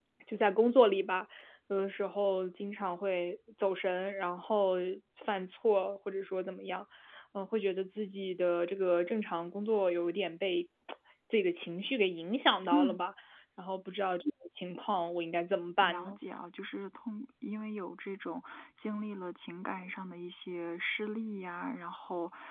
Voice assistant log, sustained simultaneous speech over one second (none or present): none